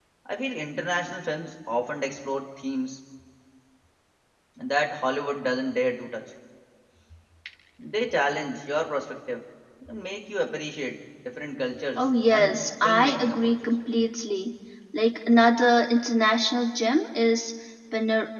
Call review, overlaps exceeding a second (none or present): present